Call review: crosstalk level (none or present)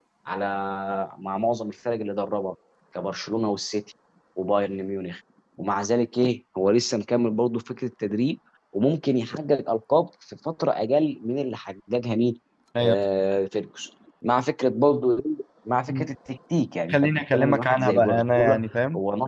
present